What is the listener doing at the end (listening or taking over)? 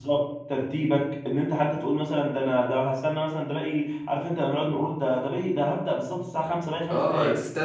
taking over